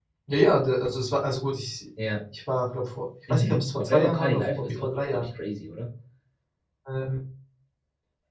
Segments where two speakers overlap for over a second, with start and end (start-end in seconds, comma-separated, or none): 3.3-5.3